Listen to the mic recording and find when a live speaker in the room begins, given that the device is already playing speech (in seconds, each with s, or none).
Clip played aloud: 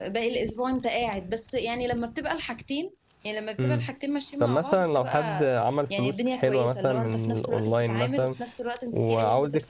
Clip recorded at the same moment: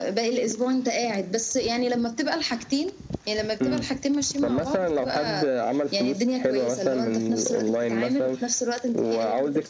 none